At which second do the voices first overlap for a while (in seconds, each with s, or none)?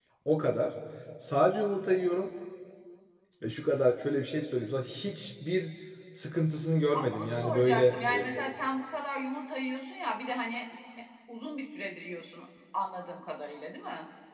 6.9 s